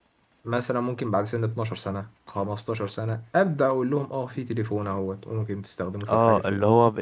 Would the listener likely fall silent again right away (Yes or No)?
No